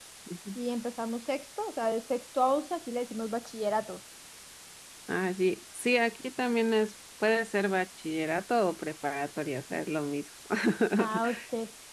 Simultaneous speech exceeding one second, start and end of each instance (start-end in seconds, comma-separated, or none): none